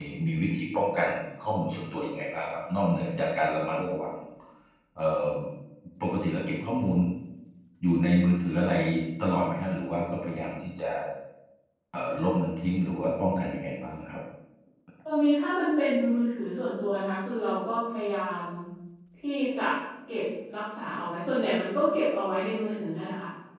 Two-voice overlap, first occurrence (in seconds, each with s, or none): none